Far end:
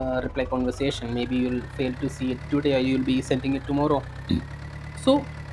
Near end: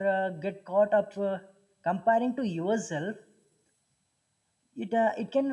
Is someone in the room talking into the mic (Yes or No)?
Yes